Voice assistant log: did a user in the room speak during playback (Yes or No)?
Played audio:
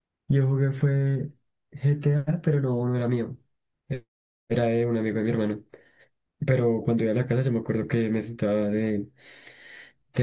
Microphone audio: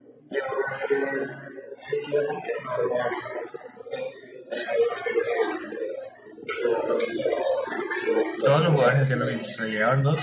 Yes